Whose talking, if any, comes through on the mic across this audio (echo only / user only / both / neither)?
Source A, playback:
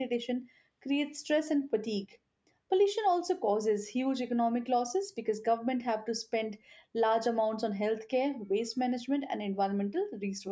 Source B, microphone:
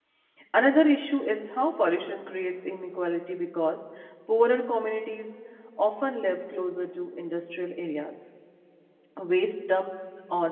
user only